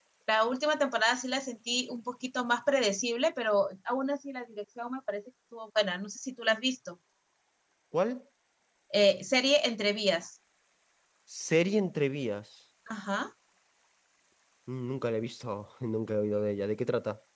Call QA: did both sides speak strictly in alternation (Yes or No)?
Yes